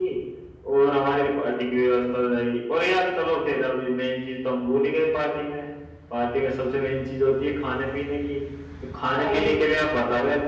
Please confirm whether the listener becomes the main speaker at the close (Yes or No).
No